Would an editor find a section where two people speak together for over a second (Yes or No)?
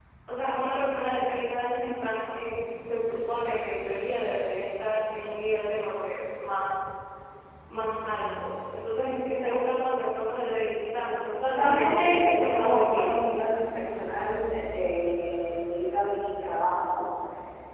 Yes